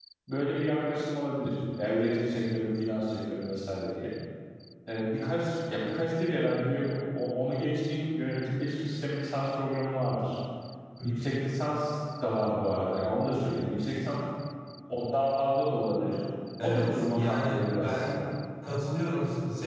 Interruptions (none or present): present